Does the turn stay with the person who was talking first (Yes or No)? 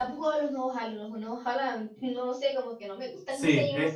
No